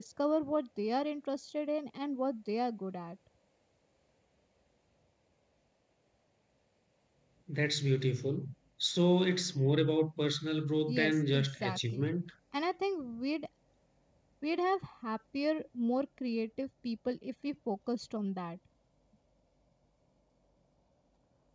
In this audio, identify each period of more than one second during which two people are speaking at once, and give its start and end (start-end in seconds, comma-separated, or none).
10.9-12.1